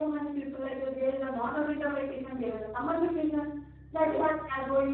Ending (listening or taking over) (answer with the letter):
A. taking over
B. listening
B